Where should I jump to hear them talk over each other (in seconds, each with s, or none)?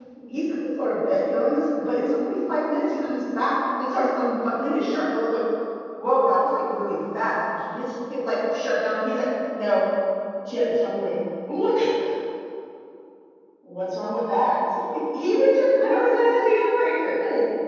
15.8 s